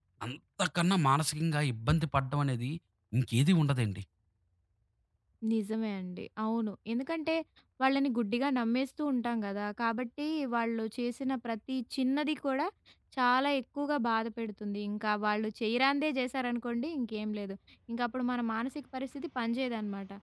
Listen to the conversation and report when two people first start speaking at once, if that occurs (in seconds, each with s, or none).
none